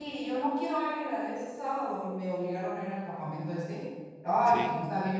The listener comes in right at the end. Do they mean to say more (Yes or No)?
No